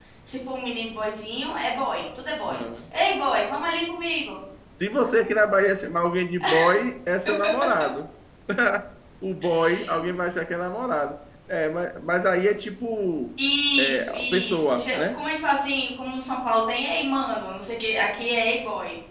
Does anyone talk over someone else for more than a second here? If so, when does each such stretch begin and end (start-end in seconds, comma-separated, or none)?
13.8-15.2